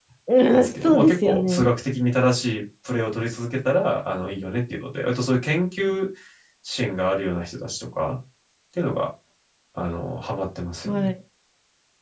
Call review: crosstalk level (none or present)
present